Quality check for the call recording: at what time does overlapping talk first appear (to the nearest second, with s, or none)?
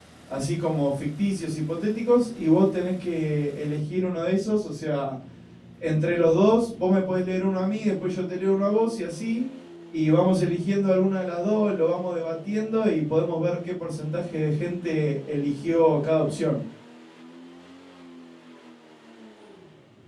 none